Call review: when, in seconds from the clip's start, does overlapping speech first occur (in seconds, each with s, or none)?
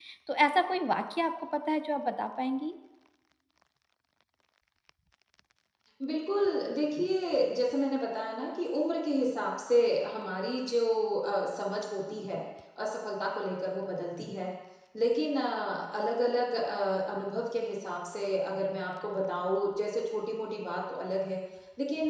none